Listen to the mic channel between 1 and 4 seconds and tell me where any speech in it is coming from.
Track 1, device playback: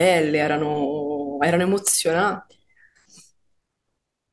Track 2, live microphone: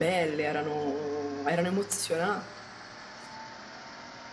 echo only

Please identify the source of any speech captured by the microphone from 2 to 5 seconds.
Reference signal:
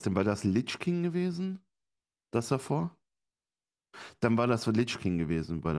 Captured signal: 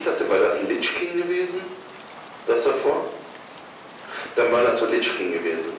echo only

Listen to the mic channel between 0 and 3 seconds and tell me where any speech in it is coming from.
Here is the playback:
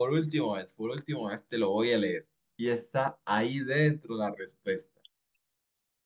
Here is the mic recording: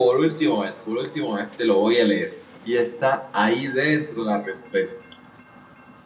echo only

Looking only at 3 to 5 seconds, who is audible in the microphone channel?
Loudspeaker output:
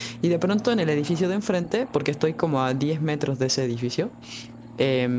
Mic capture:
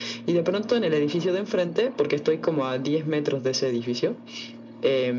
echo only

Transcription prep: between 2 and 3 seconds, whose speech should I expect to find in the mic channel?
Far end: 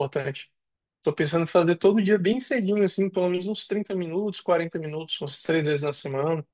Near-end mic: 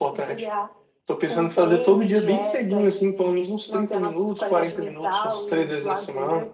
both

